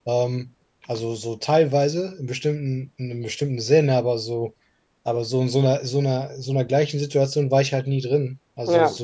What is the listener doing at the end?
listening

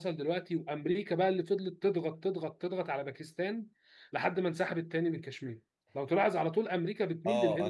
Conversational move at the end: taking over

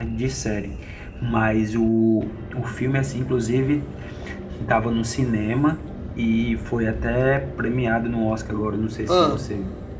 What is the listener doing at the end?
listening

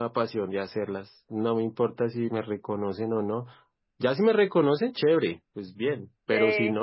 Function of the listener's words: listening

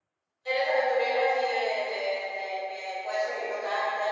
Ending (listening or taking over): taking over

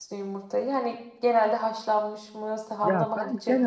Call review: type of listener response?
taking over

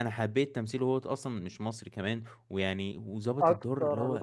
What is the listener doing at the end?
taking over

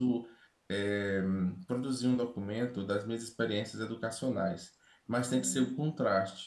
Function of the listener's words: listening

